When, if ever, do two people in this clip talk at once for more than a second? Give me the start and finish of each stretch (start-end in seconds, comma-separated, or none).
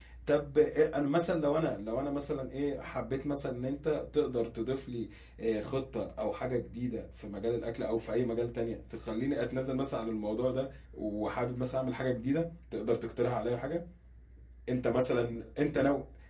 none